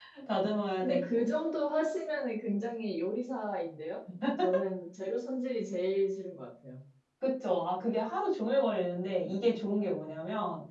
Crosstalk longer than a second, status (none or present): none